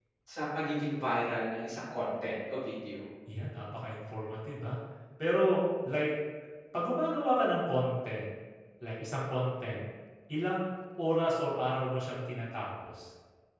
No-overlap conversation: Yes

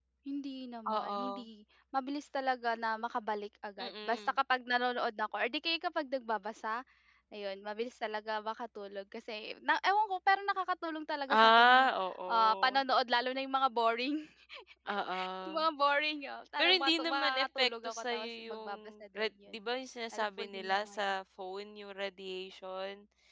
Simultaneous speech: Yes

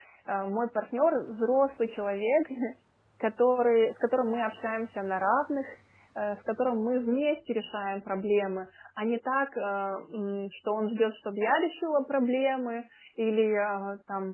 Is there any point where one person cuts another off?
No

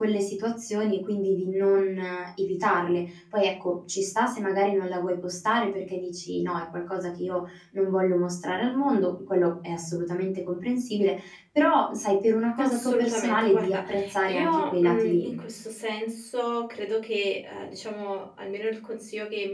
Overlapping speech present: Yes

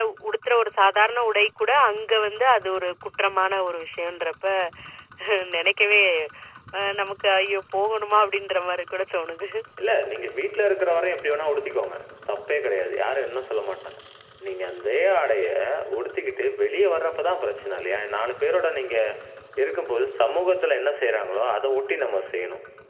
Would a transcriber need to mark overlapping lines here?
No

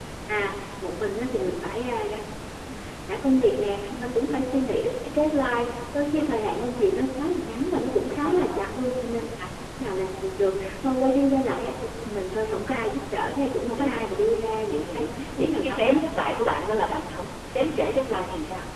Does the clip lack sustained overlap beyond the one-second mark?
No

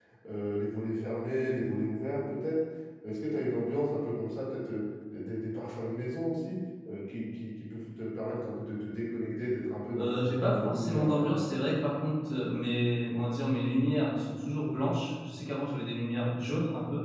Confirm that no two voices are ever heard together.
No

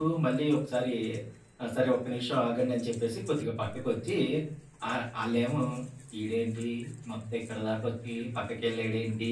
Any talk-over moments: No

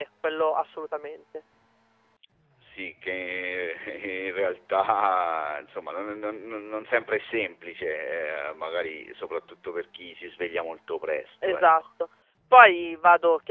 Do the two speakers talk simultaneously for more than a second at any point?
No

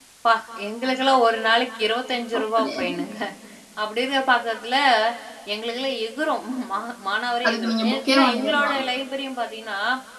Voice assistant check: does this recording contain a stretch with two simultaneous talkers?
Yes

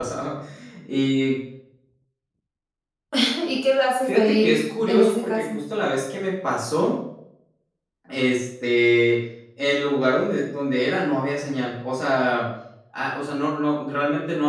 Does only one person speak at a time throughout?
No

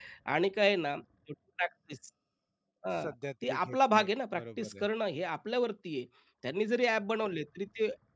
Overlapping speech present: Yes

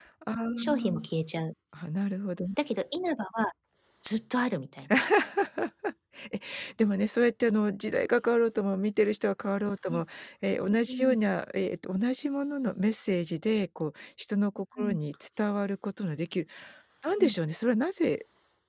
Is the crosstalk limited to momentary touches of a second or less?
Yes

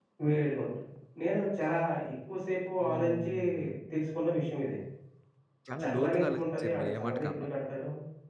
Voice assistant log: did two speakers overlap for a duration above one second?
Yes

